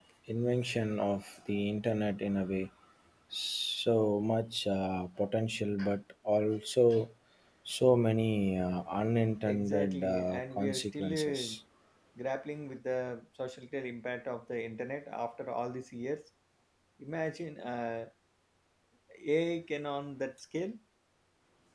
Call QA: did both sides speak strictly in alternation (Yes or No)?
No